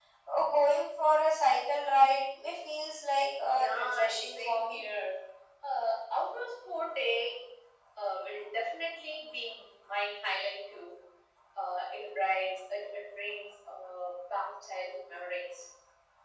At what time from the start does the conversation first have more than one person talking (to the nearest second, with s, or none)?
3 s